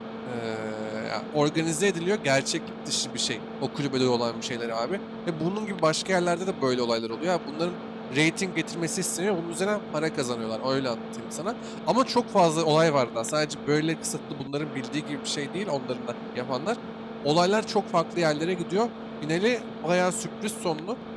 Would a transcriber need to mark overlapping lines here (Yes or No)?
No